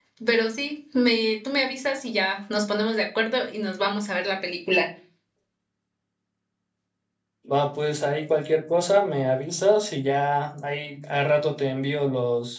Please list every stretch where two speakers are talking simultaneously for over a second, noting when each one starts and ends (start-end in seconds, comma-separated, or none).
none